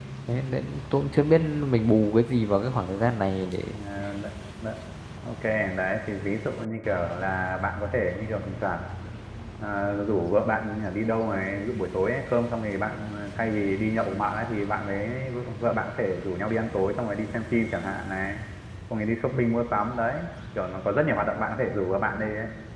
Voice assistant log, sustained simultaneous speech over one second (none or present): none